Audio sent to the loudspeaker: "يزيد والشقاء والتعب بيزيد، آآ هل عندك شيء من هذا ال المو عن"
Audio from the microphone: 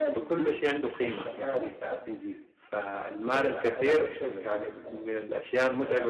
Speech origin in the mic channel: both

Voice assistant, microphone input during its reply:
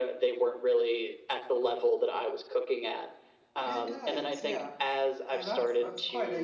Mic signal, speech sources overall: both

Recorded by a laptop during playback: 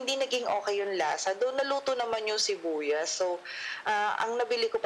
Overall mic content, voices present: echo only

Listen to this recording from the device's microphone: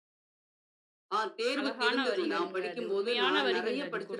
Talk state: both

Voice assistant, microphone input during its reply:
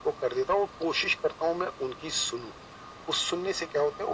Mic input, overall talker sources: echo only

